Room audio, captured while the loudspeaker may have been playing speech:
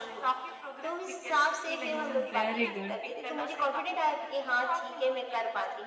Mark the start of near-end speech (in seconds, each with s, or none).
1.8 s